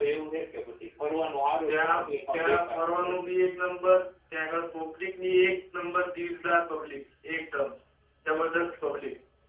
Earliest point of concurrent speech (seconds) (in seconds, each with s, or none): 1.7 s